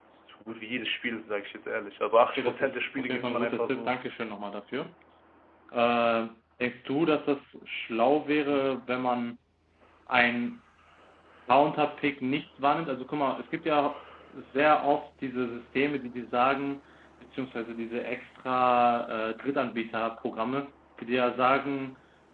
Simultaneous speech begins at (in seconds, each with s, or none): 2.2 s